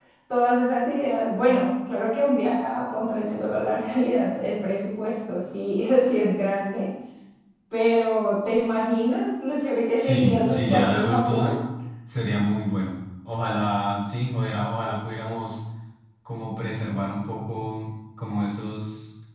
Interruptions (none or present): present